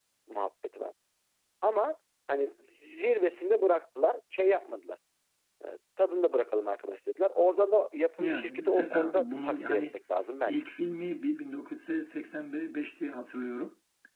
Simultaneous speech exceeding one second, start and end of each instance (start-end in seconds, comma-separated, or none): 8.2-9.9